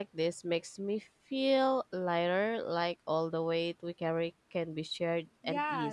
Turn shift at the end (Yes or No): Yes